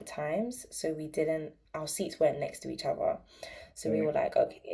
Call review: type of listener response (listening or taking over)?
listening